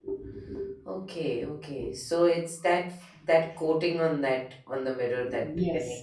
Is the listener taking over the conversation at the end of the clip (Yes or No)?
Yes